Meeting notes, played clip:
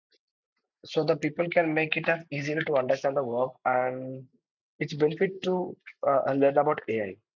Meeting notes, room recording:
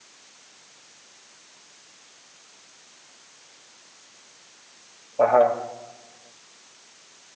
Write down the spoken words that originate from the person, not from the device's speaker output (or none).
Uh-huh.